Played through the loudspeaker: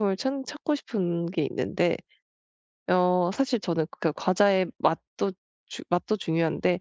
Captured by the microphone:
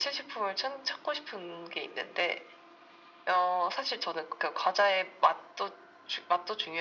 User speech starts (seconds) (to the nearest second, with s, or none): none